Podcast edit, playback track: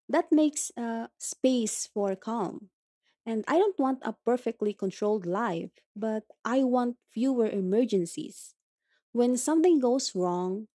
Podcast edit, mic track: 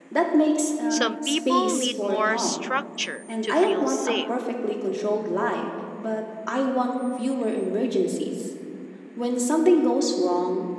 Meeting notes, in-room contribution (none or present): present